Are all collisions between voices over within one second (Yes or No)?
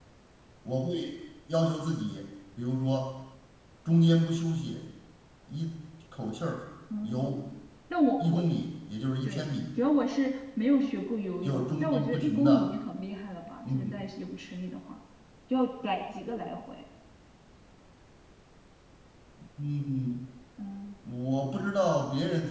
No